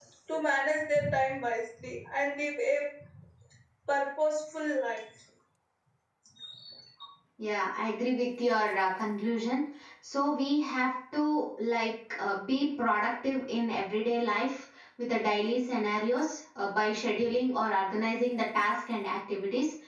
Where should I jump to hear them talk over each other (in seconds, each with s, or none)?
none